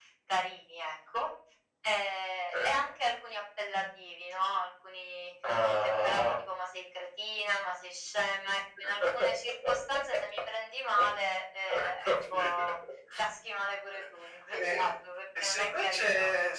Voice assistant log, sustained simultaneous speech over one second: present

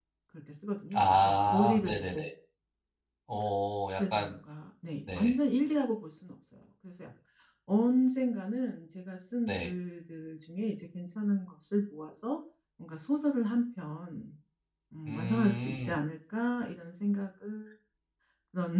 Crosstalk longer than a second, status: present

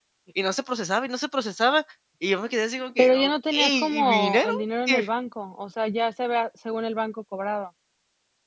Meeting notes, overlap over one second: present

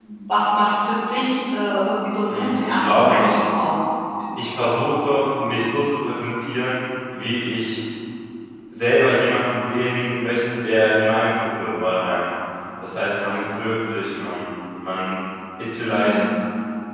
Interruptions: present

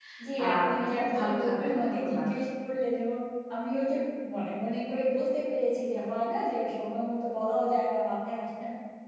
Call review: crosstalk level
present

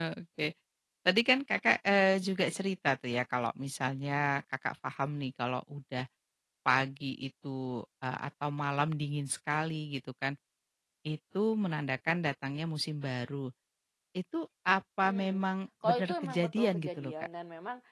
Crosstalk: present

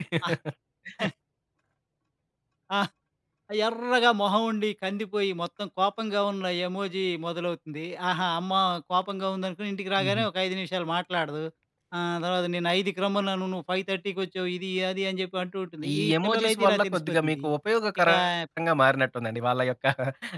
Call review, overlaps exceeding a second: present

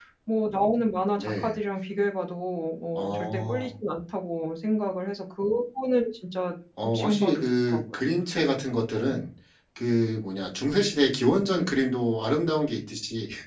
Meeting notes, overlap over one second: present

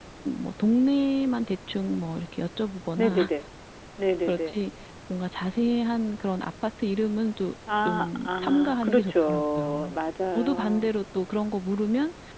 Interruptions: present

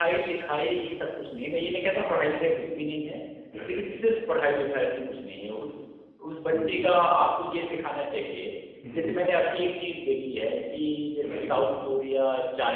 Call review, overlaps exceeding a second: none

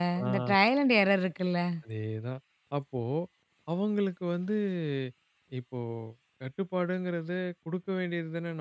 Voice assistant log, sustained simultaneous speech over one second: none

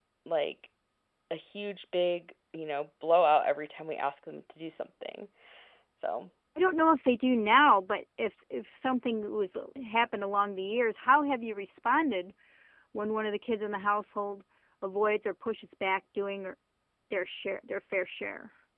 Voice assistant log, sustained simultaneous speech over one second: none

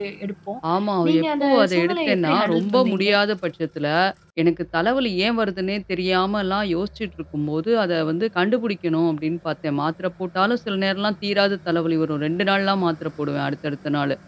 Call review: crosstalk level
present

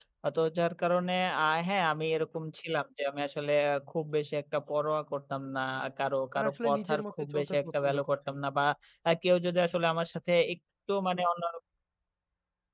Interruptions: present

